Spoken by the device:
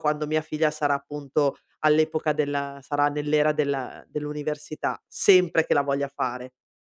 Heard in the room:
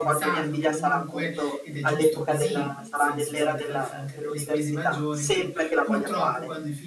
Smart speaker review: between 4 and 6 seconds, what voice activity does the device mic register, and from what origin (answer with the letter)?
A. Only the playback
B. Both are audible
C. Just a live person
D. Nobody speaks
B